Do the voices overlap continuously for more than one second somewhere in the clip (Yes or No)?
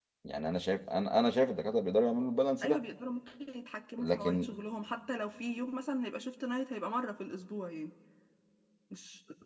No